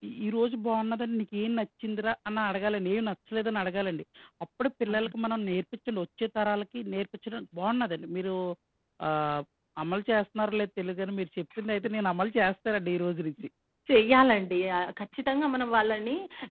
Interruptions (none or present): none